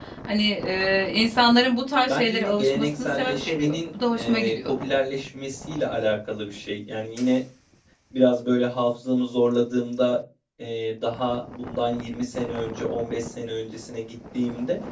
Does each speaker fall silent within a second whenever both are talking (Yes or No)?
No